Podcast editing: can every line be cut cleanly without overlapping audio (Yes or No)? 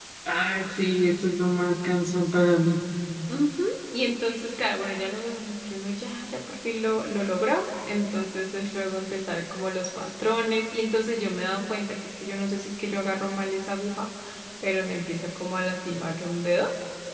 Yes